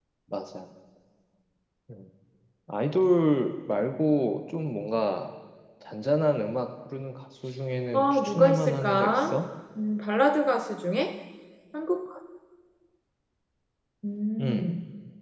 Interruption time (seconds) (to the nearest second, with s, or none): 8 s